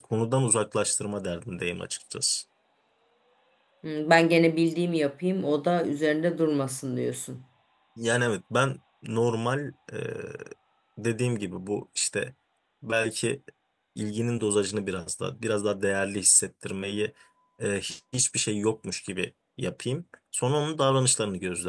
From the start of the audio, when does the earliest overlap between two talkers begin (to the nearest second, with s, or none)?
none